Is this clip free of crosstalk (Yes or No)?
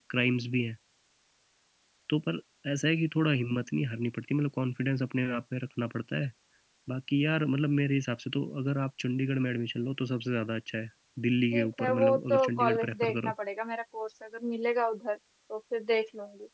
No